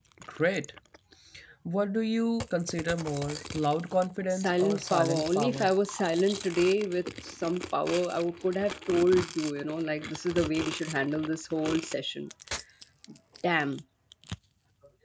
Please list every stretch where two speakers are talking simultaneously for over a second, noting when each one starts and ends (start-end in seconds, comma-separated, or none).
4.3-5.7